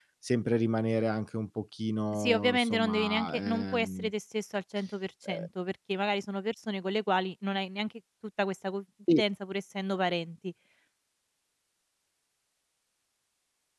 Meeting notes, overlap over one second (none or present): present